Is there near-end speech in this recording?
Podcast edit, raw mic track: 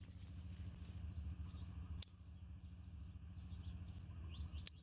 No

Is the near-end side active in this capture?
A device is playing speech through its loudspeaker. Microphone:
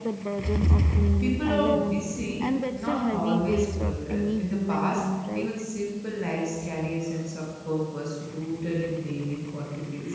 Yes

